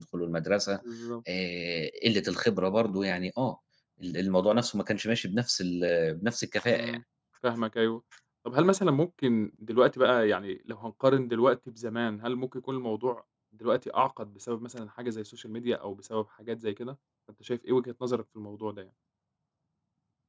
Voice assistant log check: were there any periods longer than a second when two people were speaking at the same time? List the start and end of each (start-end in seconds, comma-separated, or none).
none